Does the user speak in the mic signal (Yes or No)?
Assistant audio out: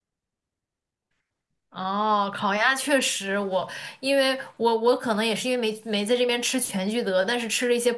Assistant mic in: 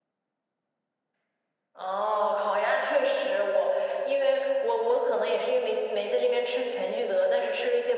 No